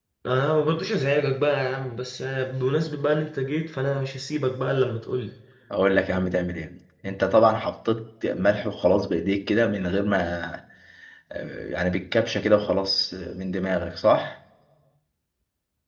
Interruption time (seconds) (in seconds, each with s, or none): none